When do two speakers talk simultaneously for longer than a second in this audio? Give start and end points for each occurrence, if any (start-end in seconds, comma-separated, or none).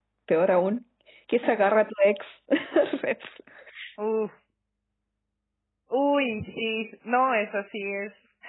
none